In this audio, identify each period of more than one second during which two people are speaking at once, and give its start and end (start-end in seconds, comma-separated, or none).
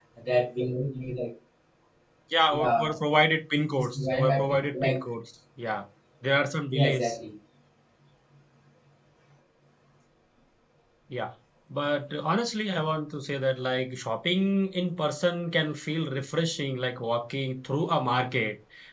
3.8-5.0